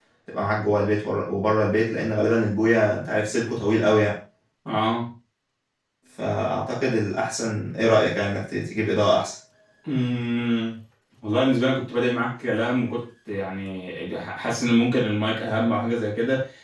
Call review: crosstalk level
none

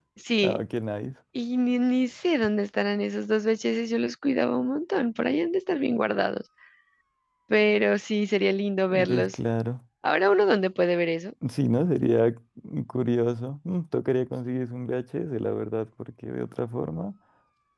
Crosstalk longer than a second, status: none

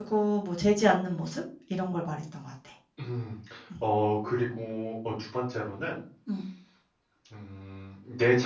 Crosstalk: none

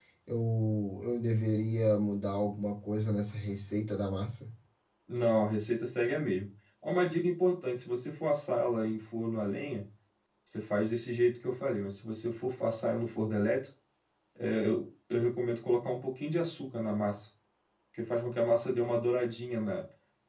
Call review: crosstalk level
none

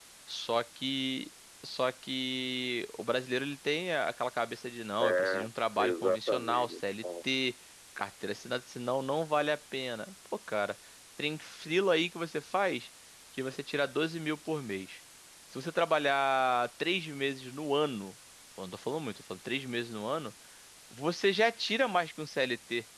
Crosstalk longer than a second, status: present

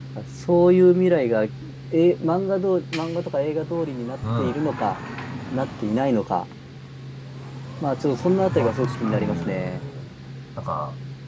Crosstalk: present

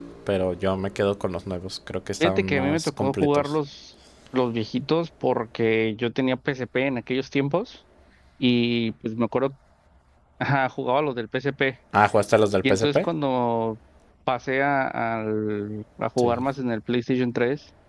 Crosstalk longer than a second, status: present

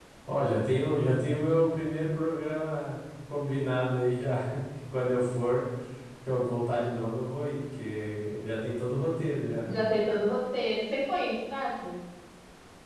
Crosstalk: none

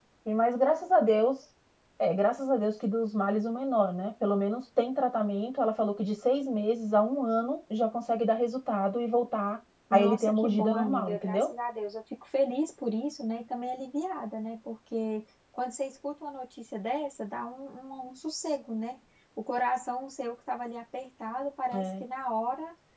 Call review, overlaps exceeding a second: present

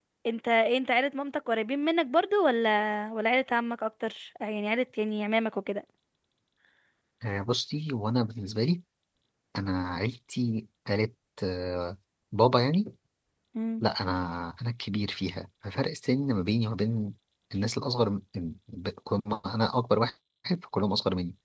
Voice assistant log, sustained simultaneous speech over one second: none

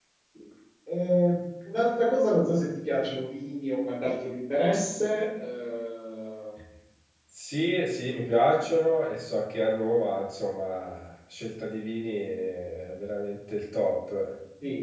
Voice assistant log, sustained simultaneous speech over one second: none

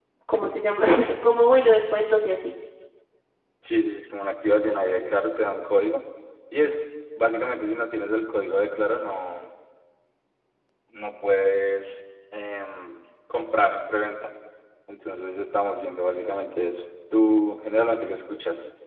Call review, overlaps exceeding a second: none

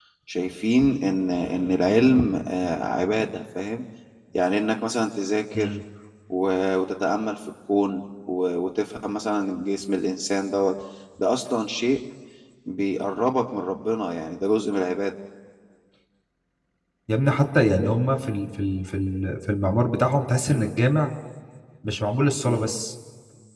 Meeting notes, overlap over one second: none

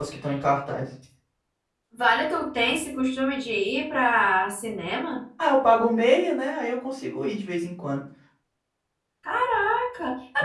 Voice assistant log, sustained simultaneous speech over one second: none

